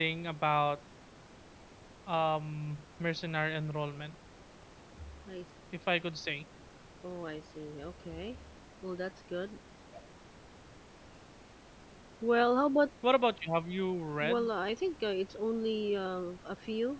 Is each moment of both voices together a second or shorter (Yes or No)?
Yes